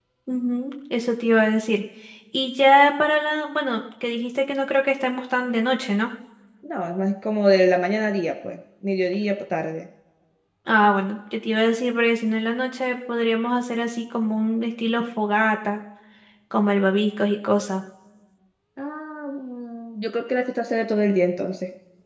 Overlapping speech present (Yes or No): No